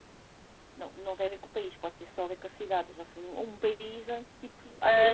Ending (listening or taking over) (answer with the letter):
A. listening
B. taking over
B